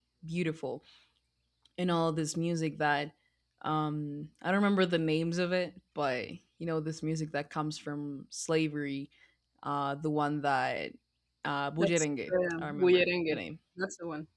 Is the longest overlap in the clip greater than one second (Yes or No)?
Yes